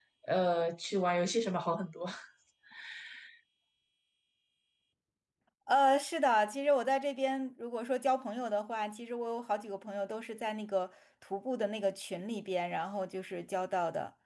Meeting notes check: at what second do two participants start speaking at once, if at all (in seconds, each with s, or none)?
none